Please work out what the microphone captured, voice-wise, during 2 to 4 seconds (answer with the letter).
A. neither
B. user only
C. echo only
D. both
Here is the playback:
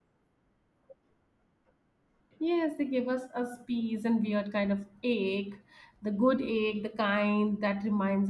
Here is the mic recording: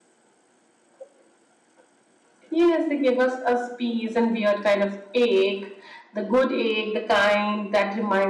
C